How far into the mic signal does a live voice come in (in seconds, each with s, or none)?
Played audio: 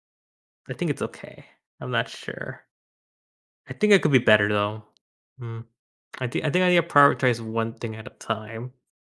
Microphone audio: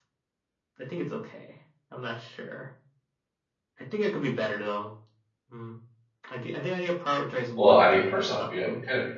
7.5 s